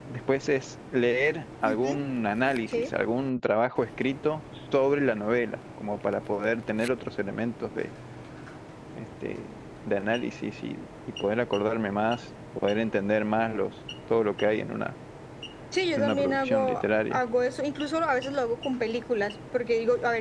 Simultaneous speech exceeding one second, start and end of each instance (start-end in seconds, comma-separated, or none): 16.0-17.2